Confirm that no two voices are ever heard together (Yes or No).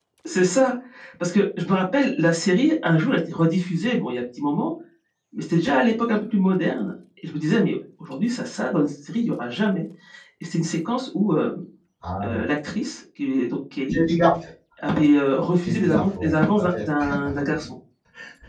No